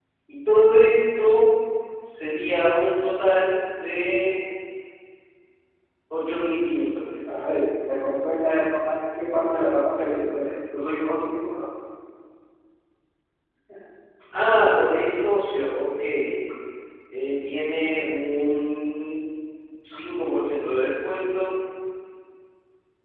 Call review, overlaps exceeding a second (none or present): none